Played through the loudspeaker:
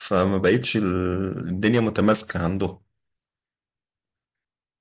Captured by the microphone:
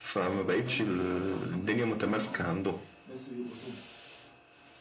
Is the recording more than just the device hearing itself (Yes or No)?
Yes